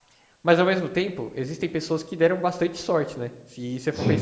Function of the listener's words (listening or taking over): listening